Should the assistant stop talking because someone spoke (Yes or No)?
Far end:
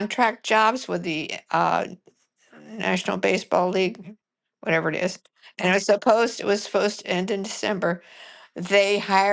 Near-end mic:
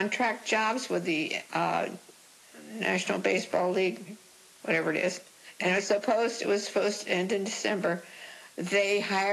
No